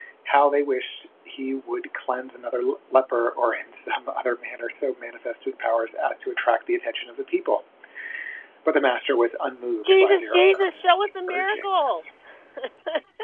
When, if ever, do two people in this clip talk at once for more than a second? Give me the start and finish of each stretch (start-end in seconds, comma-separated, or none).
9.8-12.0